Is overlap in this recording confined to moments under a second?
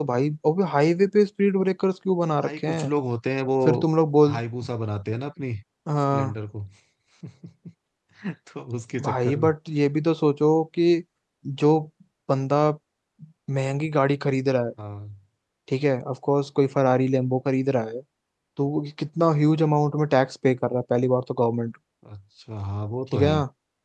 Yes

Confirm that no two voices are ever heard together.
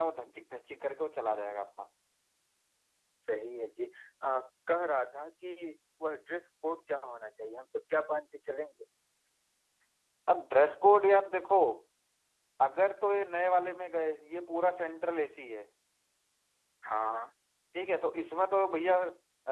Yes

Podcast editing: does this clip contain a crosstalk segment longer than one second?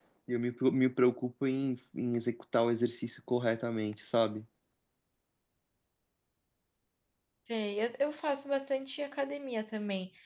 No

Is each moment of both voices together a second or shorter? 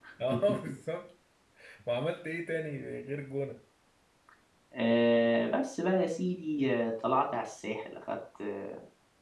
Yes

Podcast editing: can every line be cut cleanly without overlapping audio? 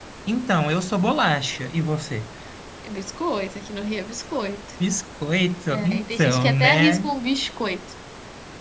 No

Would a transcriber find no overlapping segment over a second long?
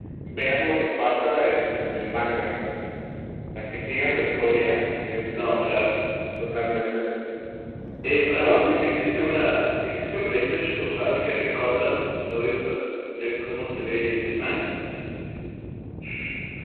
Yes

